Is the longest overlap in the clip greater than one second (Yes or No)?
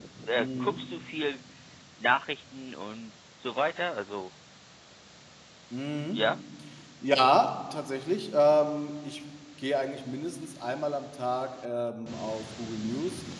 No